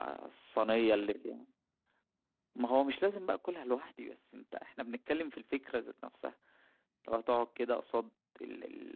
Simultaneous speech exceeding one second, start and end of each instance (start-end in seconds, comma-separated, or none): none